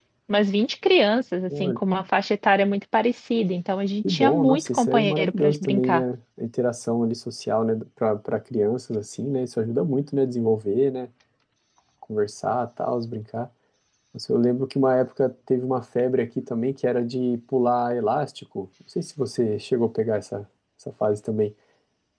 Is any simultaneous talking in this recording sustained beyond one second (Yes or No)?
Yes